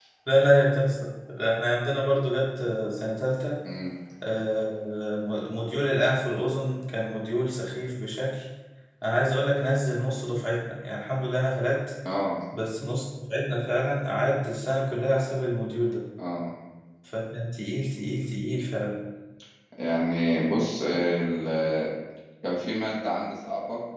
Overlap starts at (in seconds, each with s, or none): none